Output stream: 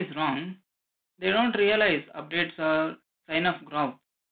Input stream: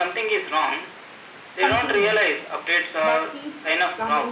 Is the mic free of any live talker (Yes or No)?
No